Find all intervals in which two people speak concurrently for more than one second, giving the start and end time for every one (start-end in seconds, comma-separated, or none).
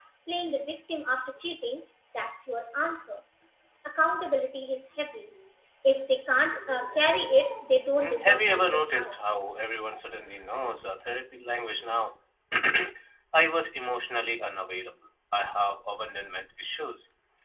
8.0-9.3